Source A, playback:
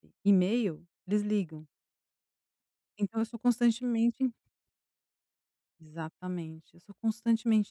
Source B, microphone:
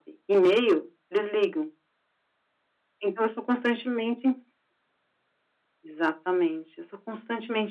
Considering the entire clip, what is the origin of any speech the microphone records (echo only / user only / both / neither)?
echo only